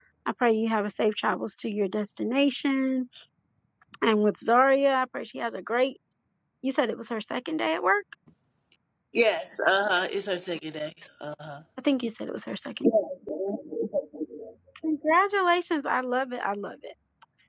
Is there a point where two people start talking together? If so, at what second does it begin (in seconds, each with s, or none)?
none